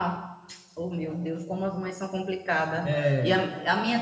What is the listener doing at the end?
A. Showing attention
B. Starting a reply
A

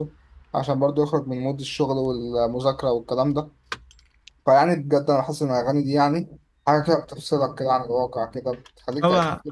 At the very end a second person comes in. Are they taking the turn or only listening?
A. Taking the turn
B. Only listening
A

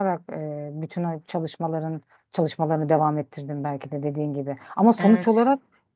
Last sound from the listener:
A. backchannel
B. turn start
A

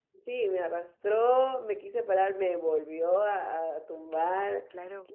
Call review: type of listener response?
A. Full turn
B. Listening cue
B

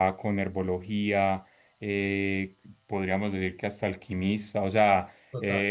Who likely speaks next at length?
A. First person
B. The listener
A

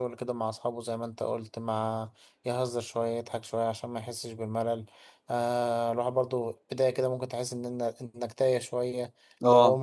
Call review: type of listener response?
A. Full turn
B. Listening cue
B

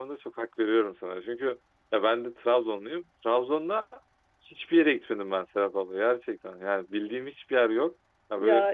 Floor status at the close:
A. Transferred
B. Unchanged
B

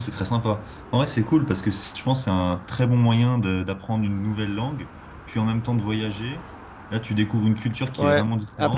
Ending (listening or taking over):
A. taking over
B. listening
A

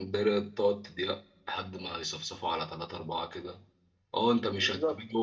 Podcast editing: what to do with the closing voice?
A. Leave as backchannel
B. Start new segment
A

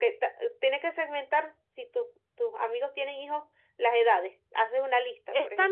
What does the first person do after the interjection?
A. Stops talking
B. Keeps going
A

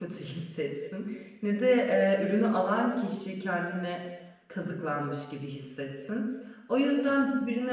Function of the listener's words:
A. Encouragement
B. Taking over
A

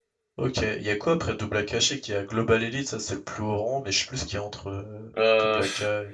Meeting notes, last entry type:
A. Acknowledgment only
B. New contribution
B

